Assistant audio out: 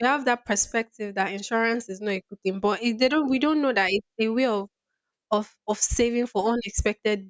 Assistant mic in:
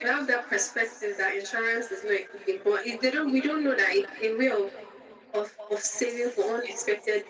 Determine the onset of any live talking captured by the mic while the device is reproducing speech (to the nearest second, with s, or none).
none